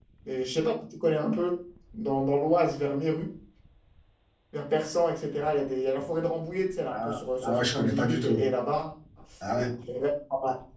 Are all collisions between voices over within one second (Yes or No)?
No